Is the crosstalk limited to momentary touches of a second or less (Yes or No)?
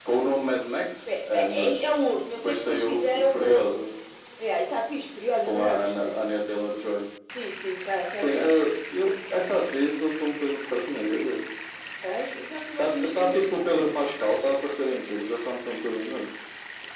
No